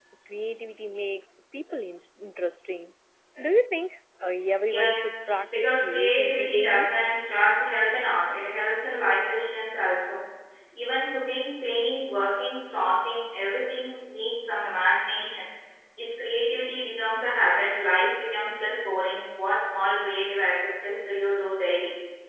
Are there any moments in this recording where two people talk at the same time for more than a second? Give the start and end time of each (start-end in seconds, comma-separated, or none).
4.7-6.9